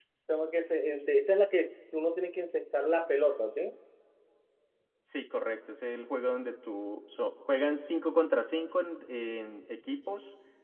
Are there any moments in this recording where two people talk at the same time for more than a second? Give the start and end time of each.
none

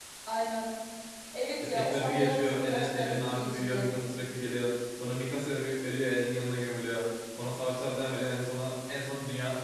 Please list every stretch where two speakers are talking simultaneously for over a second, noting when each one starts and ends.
1.6-3.9

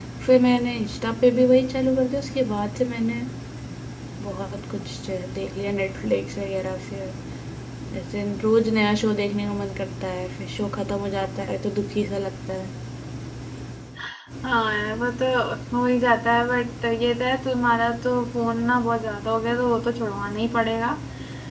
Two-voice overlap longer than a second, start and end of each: none

